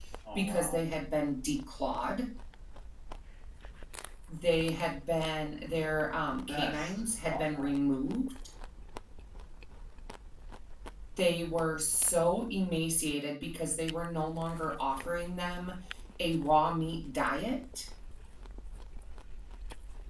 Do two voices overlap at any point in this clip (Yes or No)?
Yes